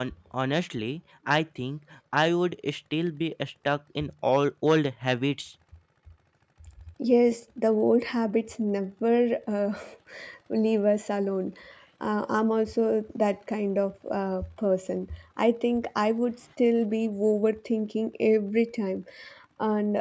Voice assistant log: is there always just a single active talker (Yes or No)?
Yes